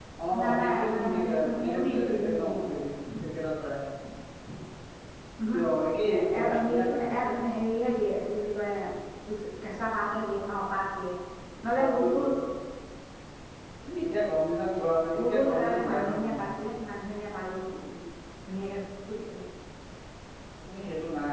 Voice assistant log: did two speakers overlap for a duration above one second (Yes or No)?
Yes